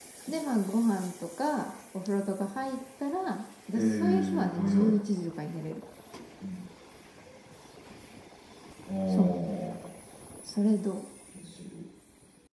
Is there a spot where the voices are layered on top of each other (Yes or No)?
Yes